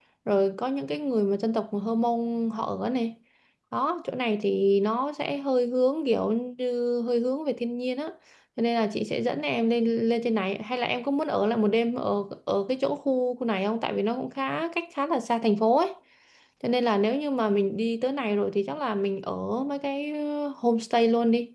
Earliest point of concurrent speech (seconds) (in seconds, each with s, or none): none